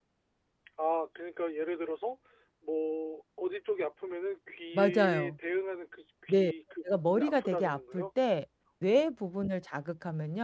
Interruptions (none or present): present